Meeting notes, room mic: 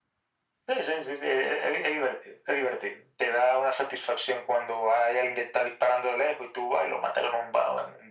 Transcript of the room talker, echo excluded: none

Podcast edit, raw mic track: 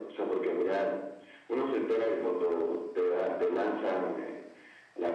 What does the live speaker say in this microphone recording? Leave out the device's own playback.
none

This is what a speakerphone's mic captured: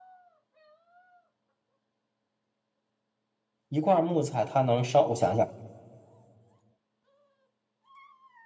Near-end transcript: 一块木材它能烧，我想想。

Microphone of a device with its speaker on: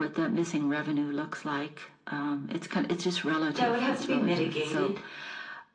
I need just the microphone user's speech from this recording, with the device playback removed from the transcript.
that would have to be mitigated

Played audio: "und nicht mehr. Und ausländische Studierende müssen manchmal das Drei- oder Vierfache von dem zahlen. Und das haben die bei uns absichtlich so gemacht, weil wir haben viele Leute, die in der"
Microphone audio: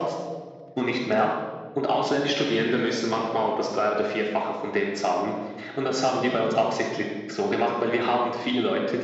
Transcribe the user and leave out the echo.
none

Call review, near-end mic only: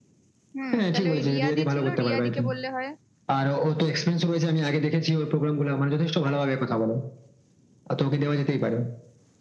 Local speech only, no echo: হুম তাহলে ওই রিয়াদি ছিল রিয়াদিকে বললে হয়

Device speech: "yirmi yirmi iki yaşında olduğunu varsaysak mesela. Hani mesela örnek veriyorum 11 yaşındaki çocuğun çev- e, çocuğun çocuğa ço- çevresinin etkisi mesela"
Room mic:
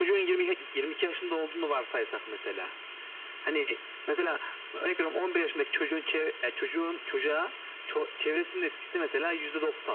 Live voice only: none

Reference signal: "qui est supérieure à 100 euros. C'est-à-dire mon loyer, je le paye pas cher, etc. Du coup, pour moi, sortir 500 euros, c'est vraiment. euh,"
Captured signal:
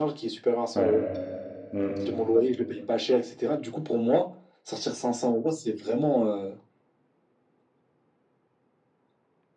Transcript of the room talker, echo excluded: ouais. Mm.

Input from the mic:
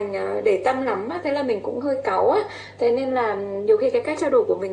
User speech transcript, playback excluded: none

